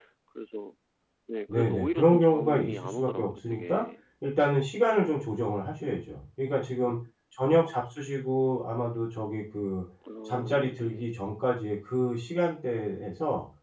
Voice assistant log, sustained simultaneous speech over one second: present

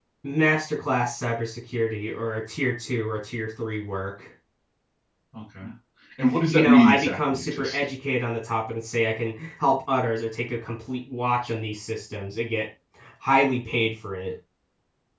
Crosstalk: present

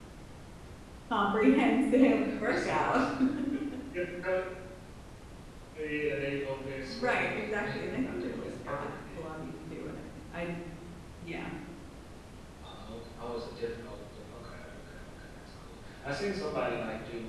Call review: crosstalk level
present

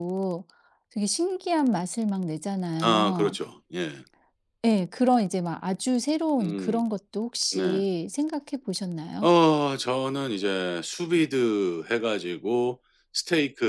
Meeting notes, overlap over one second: none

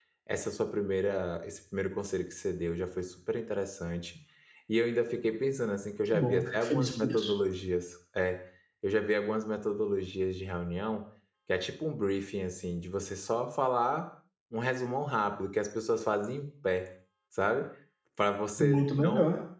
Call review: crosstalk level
present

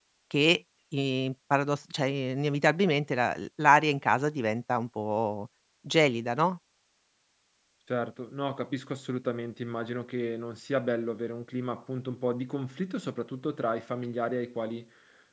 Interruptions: none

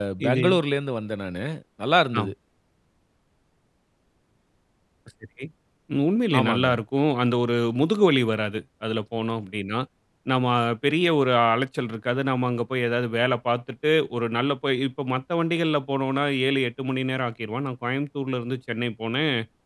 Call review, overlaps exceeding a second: none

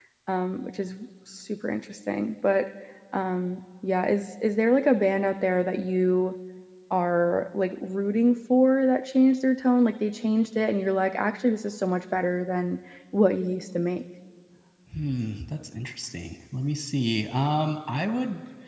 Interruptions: none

